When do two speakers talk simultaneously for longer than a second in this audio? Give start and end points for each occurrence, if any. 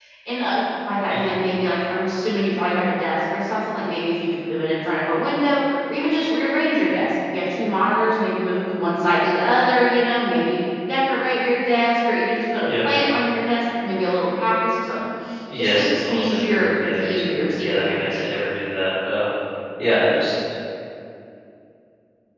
15.6-18.3

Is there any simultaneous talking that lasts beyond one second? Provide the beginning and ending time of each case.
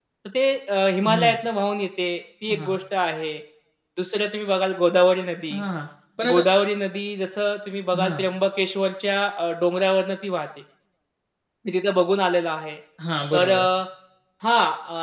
none

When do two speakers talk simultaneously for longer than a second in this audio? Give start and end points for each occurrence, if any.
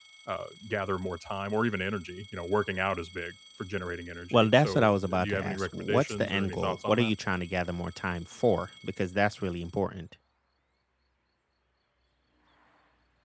4.3-7.1

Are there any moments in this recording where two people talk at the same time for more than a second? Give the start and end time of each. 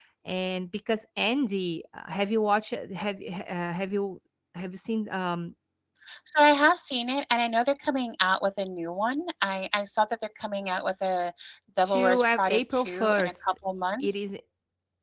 11.8-13.3

